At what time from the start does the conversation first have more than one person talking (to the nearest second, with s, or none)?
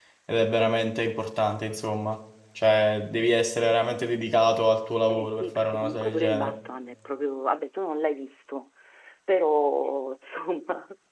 5 s